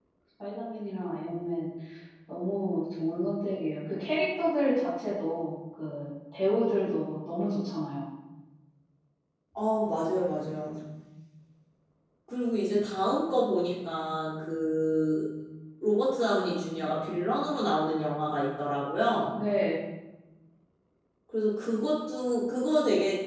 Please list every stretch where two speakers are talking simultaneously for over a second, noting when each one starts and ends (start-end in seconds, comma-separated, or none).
none